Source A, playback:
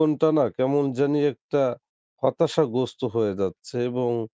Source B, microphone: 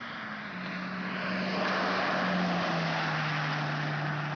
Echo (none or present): none